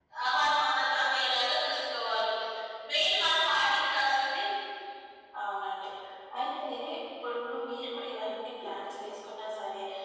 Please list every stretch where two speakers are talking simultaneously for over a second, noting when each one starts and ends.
none

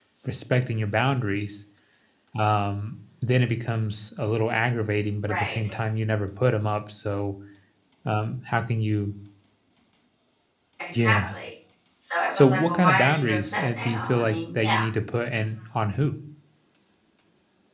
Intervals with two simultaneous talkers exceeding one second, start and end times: 12.3-14.7

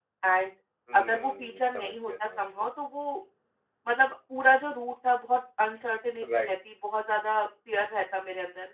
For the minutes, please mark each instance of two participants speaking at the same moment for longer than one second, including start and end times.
1.0-2.7

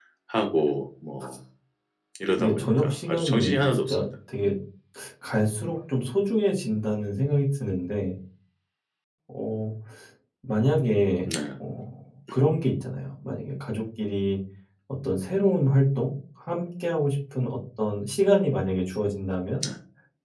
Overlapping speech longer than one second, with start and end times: 2.4-4.1

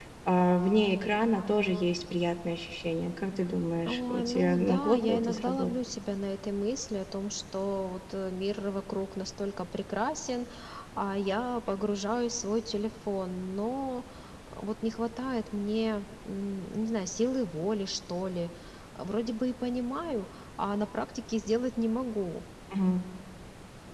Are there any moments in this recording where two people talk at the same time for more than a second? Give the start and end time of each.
3.8-5.7

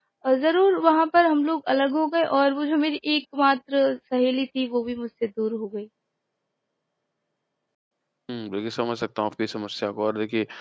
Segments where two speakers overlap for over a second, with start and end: none

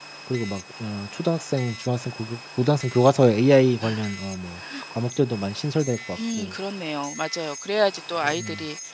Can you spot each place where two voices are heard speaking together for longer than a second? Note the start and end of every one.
none

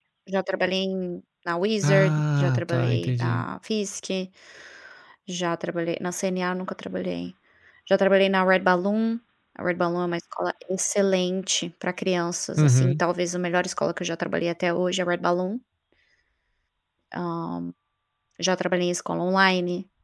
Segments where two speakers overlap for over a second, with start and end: 1.8-3.4

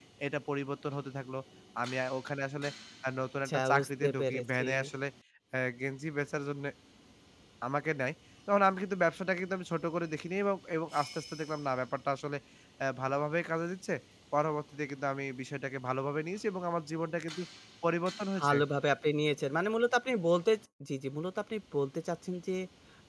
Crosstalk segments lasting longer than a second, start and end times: 3.4-4.7

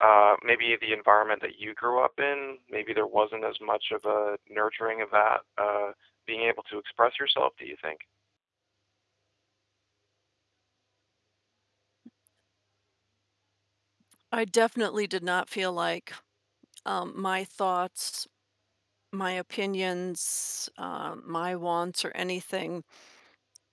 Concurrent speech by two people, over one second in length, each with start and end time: none

